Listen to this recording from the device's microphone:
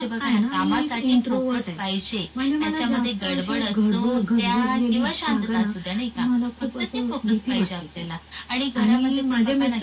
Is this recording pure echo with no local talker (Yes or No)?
Yes